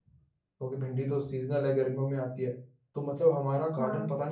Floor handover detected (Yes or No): No